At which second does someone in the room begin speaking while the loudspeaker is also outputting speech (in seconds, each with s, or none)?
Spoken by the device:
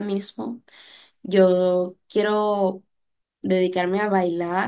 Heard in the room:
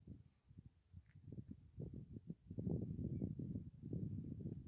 none